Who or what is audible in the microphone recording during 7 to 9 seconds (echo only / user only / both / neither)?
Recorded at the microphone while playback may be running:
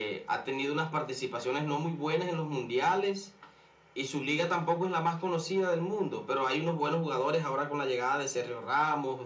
echo only